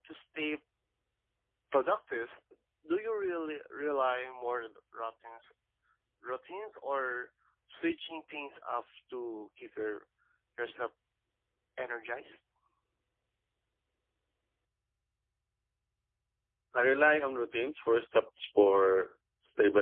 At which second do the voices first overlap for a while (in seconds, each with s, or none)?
none